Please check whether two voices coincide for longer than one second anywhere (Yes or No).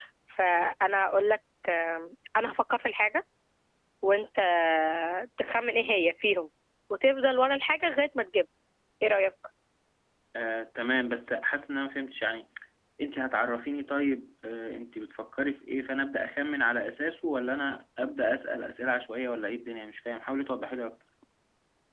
No